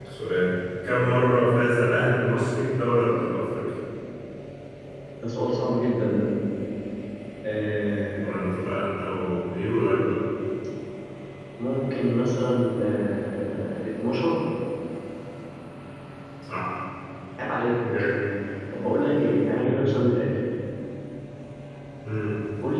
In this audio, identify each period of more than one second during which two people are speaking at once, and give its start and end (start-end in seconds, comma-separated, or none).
none